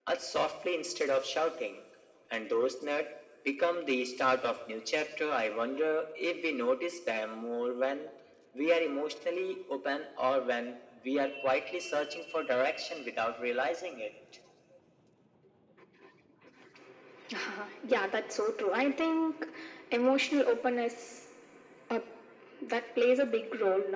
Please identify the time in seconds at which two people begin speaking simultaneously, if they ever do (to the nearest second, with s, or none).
none